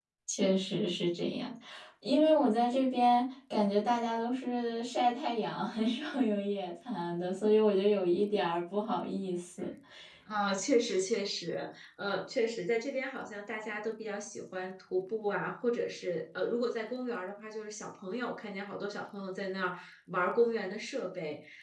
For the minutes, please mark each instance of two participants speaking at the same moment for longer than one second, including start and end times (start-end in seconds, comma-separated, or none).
none